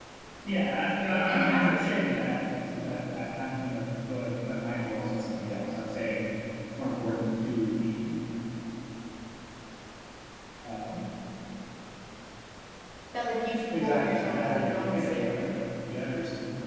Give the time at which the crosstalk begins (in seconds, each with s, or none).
1.0 s